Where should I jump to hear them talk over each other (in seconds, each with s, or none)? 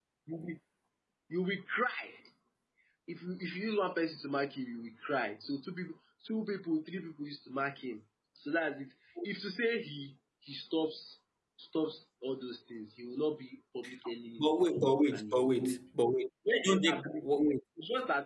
14.4 s